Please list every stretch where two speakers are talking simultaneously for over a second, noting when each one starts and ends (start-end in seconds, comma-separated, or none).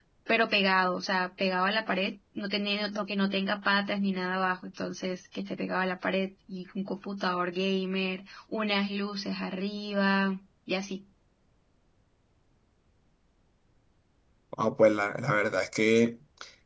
none